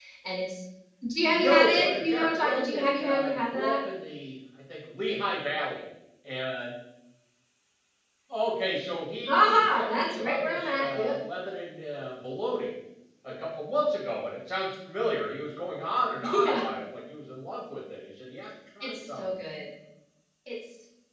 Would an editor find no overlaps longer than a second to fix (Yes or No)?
No